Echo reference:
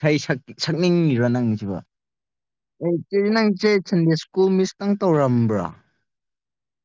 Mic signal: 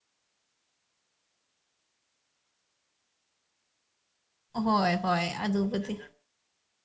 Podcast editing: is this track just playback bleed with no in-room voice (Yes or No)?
No